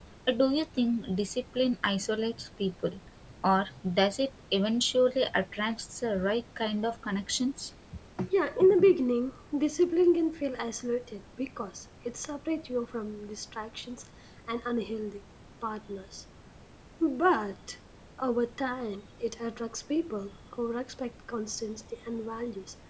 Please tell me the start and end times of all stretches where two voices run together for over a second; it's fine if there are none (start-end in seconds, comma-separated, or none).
none